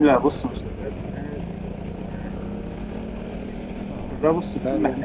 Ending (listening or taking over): listening